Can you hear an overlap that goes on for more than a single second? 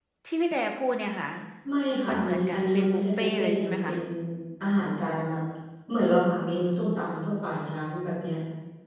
Yes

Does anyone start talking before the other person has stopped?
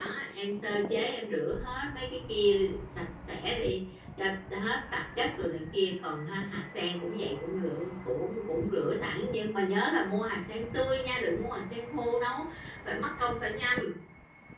No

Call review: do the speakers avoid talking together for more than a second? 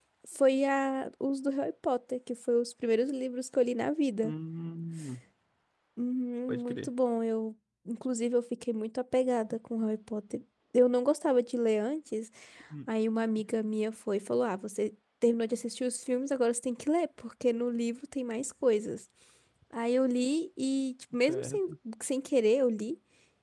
Yes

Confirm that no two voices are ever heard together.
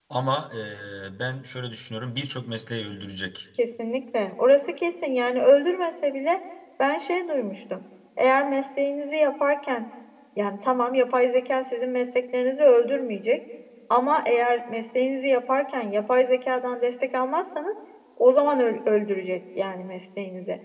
Yes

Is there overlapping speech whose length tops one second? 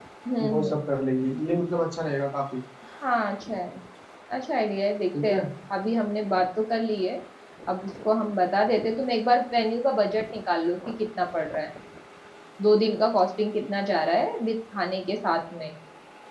No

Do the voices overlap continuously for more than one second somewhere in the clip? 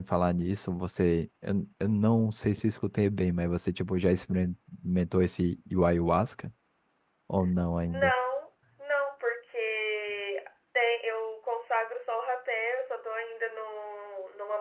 No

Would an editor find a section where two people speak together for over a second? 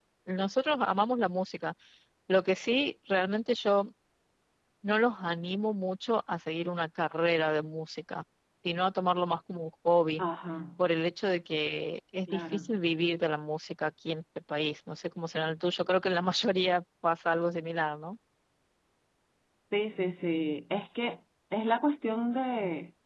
No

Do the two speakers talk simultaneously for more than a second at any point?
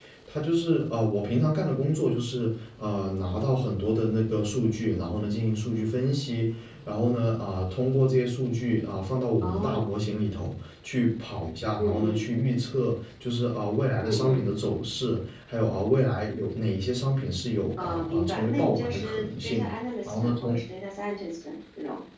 Yes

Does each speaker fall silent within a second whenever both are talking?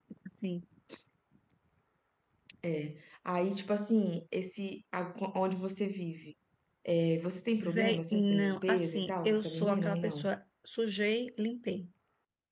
No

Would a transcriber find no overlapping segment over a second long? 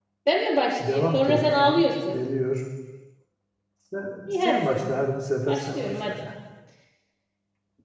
No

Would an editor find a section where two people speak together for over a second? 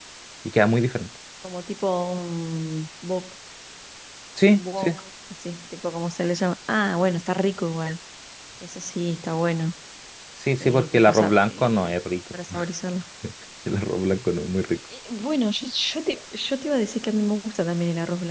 Yes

